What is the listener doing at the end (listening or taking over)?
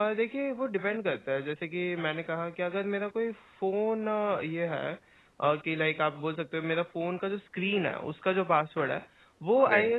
listening